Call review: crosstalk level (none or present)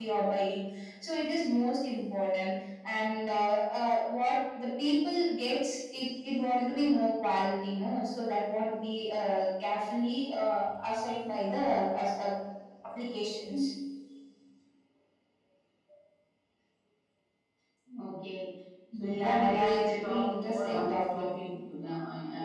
present